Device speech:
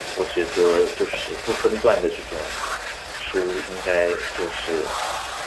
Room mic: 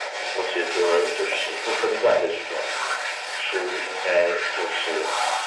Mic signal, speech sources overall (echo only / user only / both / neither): echo only